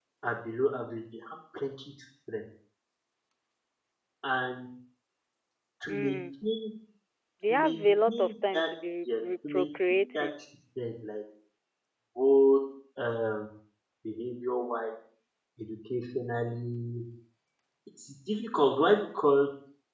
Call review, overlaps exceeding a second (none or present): present